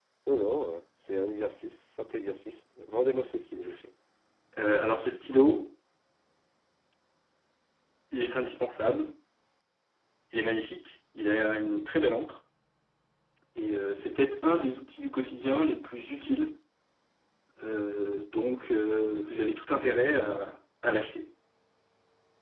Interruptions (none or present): none